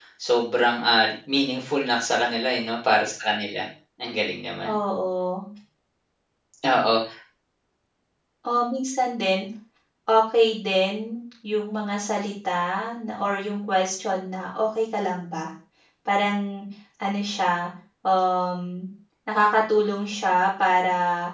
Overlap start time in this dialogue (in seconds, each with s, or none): none